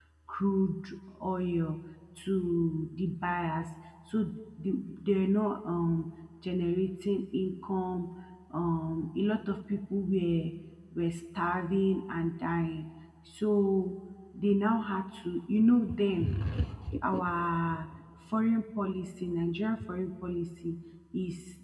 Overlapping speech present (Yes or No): No